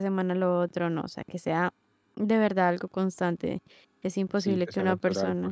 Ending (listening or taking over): taking over